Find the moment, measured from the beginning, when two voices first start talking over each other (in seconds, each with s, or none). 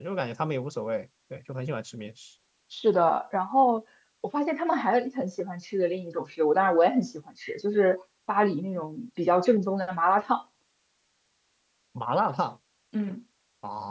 none